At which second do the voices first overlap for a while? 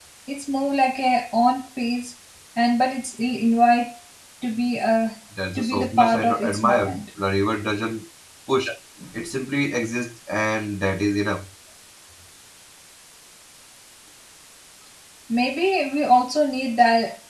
5.4 s

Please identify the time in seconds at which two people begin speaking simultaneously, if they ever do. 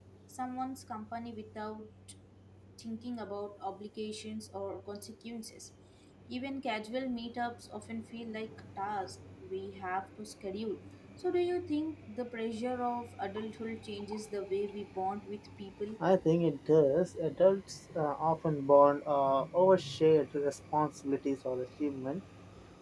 none

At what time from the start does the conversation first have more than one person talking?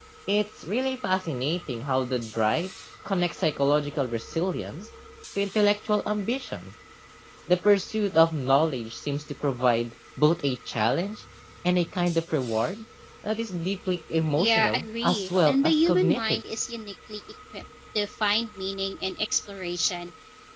14.4 s

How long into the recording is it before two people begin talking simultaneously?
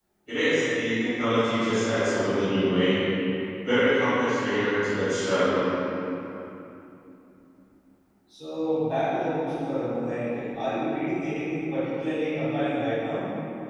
none

